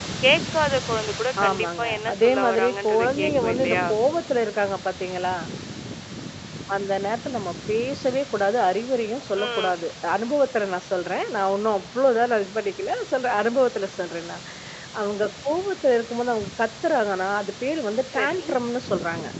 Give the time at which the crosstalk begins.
1.4 s

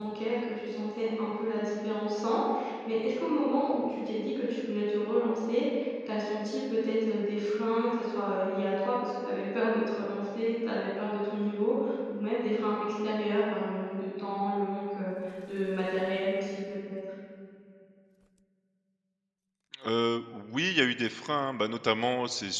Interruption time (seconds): none

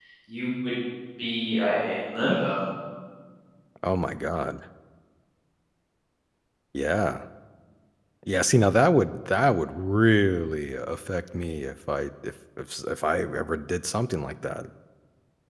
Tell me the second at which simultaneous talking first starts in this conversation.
none

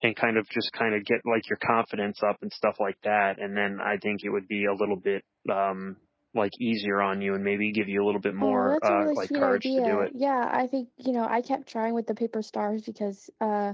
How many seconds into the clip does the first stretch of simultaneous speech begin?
8.4 s

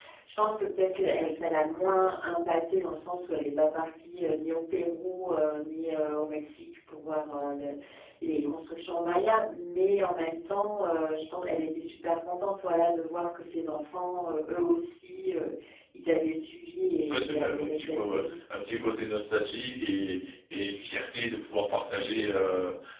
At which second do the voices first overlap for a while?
17.1 s

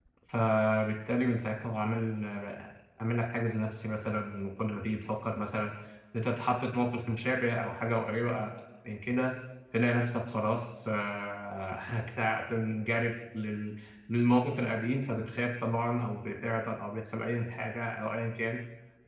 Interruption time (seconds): none

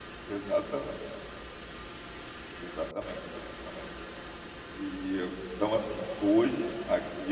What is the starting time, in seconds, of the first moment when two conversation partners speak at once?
none

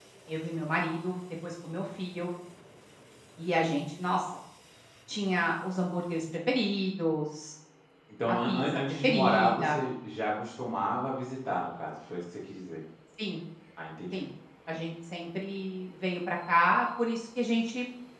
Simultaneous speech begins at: 8.3 s

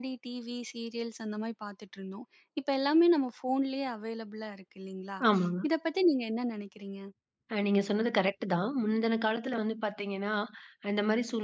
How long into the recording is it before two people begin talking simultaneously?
none

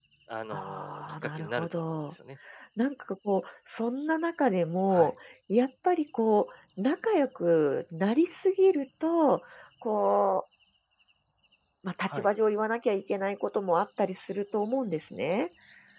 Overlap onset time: 0.5 s

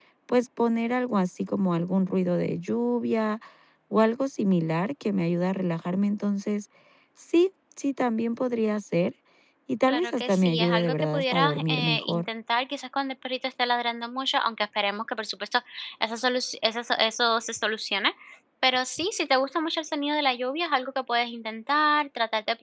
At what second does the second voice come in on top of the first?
9.9 s

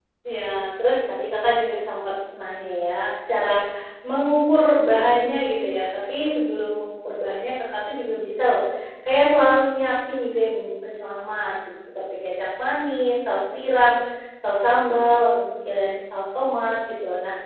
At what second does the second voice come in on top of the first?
none

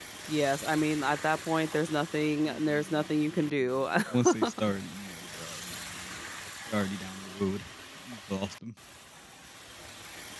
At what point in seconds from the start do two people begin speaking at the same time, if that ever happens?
2.5 s

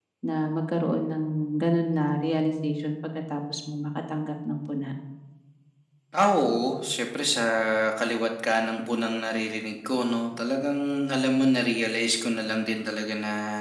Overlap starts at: none

